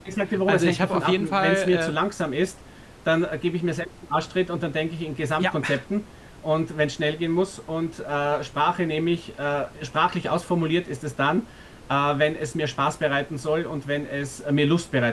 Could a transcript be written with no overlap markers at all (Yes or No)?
No